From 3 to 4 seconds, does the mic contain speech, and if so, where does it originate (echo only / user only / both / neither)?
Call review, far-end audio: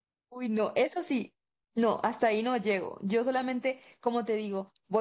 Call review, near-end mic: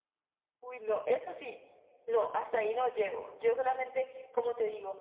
echo only